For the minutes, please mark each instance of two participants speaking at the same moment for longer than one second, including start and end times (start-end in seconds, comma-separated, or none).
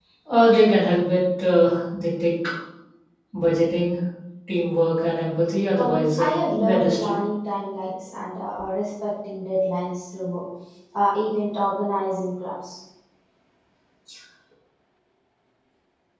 5.8-7.1